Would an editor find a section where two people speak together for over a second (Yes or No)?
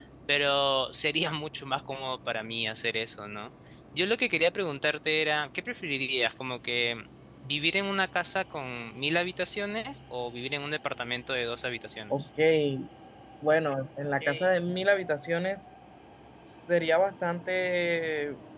No